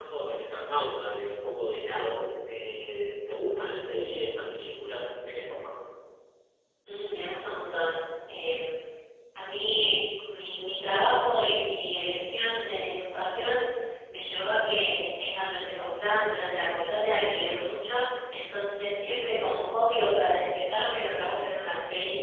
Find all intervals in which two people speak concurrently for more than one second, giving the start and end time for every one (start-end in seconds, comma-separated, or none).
none